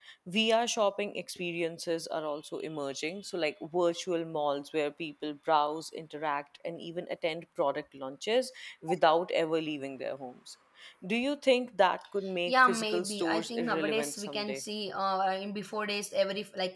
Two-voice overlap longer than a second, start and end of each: 12.5-14.6

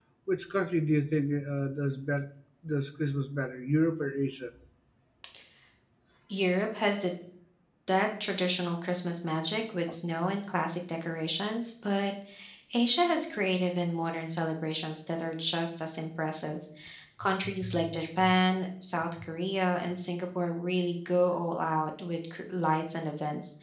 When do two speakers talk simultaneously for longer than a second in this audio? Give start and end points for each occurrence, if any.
none

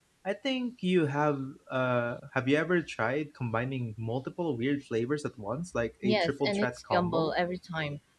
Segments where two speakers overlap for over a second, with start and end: 6.0-7.4

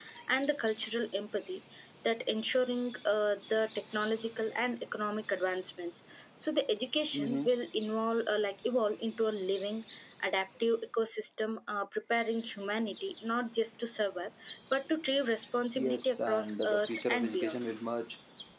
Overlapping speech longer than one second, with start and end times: 15.8-17.6

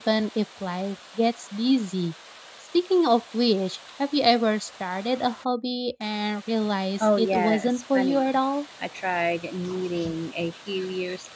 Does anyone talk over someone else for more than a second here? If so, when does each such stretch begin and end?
7.0-8.4

